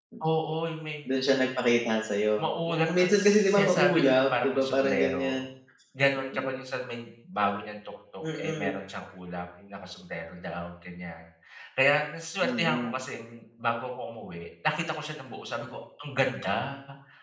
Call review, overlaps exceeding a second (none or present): present